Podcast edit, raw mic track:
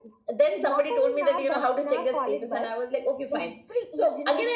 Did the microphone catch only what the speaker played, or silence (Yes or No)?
Yes